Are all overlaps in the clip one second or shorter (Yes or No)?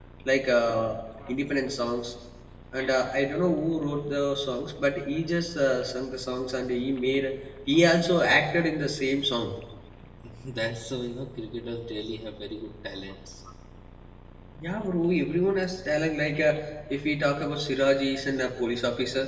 Yes